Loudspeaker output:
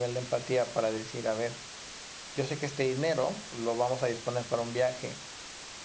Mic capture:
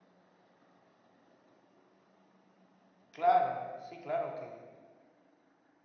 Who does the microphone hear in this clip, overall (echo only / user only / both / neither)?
user only